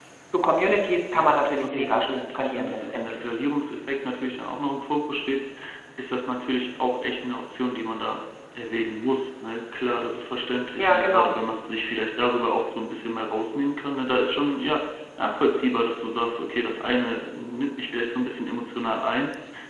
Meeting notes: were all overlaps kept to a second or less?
No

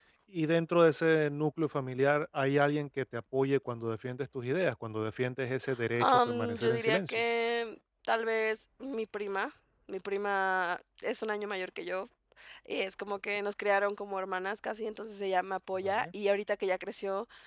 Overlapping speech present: Yes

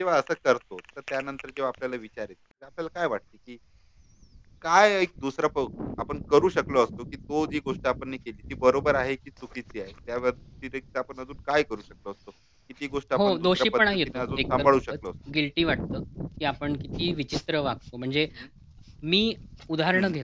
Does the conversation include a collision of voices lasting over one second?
Yes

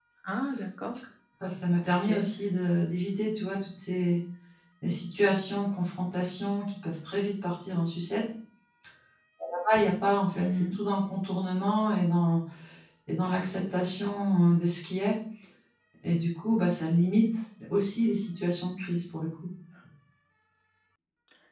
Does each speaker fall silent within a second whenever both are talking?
Yes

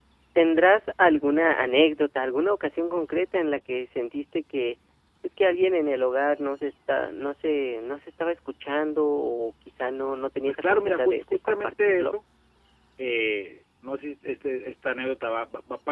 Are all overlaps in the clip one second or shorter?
No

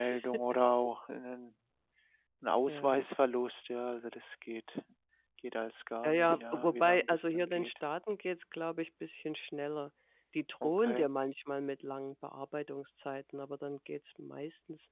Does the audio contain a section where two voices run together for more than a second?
Yes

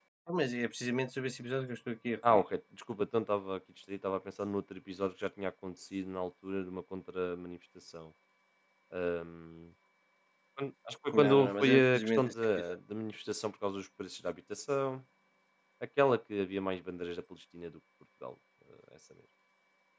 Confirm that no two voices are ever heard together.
No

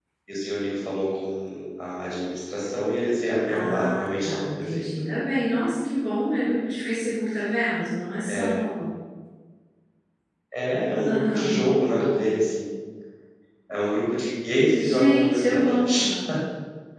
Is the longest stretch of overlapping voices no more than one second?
No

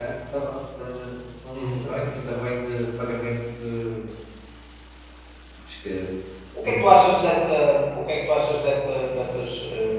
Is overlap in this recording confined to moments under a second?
Yes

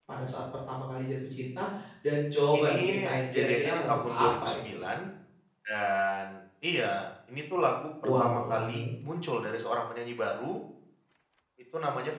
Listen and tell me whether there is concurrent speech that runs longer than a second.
Yes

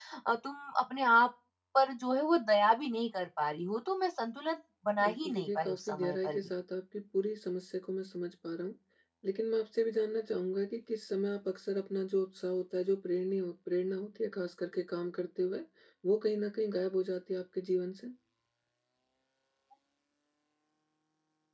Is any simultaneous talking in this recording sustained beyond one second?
Yes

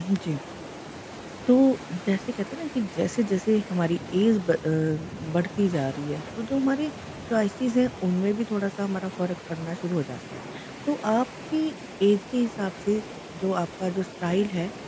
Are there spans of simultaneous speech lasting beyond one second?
No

